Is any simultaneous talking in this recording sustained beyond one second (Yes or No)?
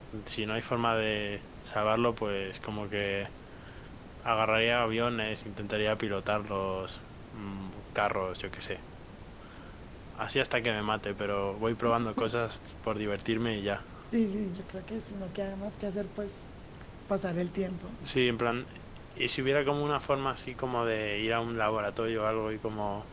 No